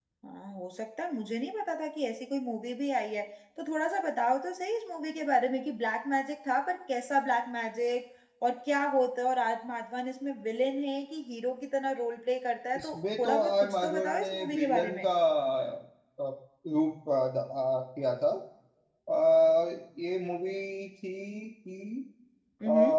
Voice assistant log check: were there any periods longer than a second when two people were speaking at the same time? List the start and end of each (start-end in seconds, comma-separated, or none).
12.8-15.1